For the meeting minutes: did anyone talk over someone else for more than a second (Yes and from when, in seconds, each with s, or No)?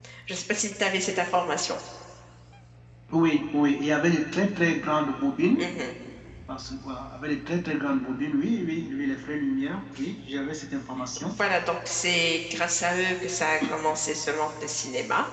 No